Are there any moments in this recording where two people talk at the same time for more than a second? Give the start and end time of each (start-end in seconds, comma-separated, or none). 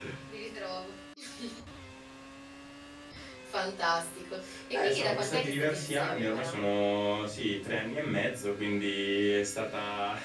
4.7-6.5